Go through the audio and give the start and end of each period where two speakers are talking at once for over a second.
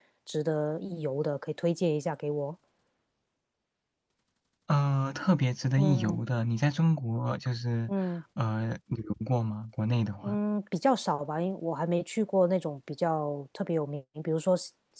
none

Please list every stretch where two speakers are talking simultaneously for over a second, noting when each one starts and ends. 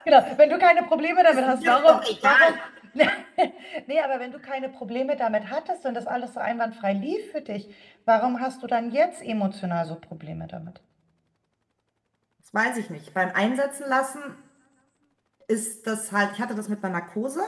1.3-2.6

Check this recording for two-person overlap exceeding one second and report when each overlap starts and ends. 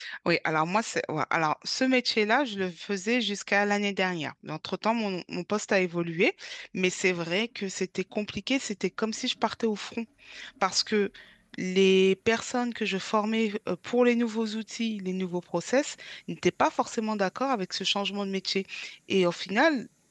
none

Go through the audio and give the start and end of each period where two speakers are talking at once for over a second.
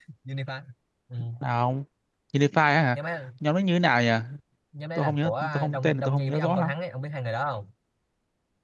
5.0-6.7

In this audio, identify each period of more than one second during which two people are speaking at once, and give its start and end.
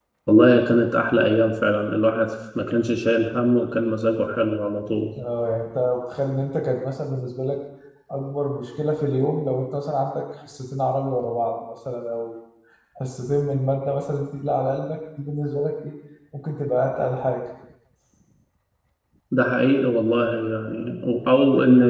none

